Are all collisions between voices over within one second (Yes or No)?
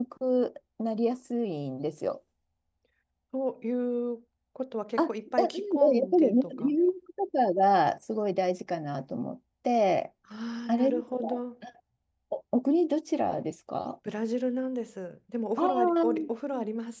No